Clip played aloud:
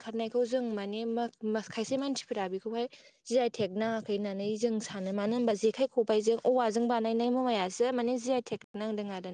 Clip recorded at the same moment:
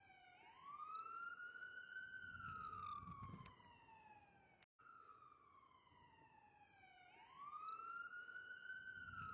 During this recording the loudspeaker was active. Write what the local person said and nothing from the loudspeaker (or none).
none